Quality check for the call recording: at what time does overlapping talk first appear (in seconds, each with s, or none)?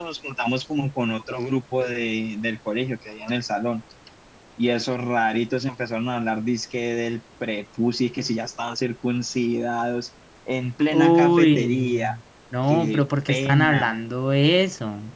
10.9 s